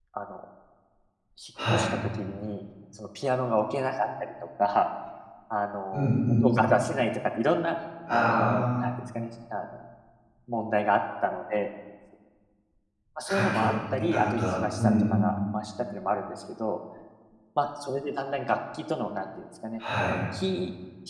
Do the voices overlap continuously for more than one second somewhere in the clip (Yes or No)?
Yes